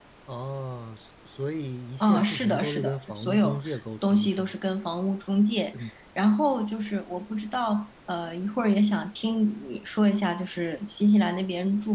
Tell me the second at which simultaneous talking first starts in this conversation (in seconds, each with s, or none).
2.0 s